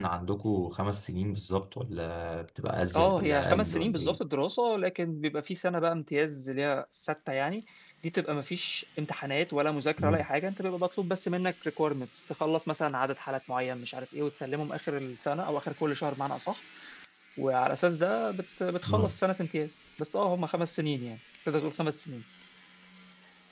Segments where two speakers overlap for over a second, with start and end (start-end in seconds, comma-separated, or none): 2.9-4.2